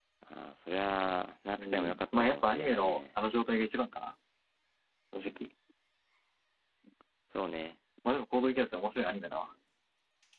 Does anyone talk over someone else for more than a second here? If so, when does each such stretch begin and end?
1.6-3.0

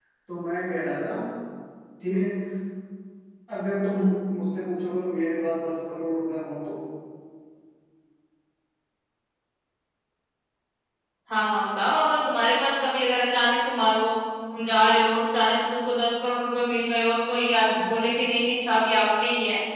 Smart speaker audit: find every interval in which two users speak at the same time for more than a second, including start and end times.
none

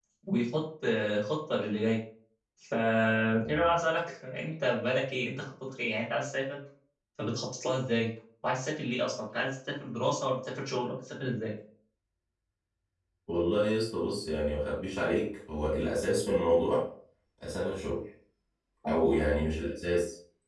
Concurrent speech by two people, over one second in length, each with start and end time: none

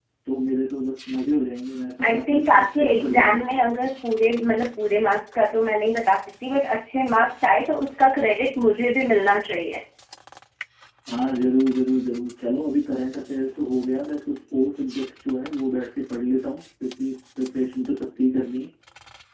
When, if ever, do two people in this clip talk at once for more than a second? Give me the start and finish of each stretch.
2.0-3.4

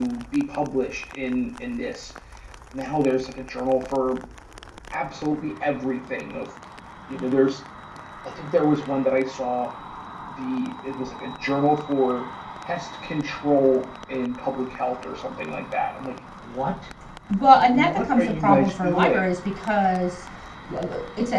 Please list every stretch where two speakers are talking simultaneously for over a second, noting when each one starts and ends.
17.7-19.2

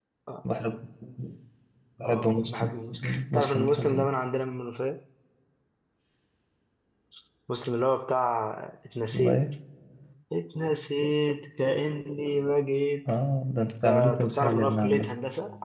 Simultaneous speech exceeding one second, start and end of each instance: 2.0-4.1, 13.8-15.1

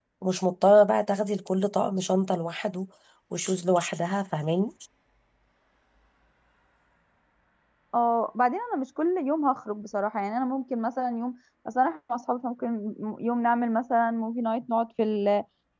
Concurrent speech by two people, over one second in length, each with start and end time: none

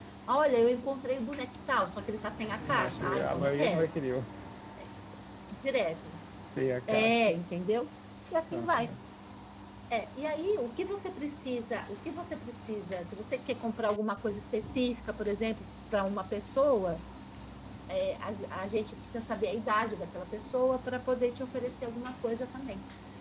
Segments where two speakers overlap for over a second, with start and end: 2.6-3.9

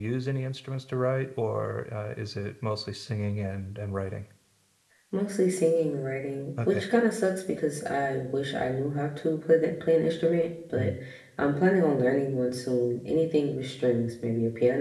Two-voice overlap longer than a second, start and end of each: none

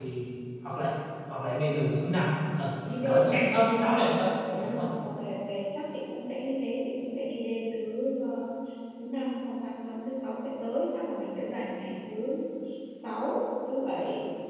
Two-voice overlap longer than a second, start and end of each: none

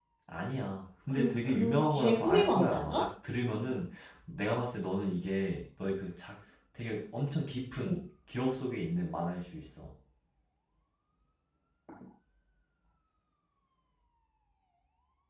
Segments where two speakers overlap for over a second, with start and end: 1.1-3.1

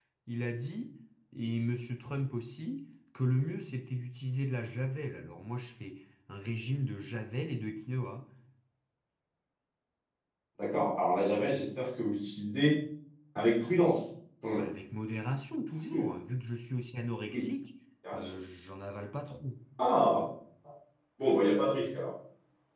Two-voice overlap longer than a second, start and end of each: none

